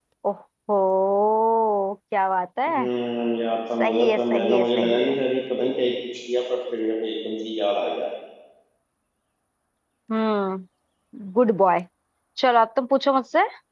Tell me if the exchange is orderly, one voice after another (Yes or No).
No